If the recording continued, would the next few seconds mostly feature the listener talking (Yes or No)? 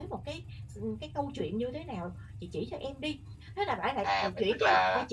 Yes